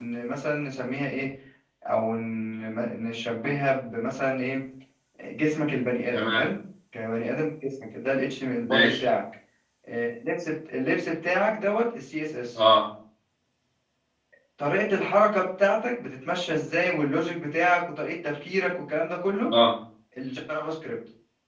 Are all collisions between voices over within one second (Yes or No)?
Yes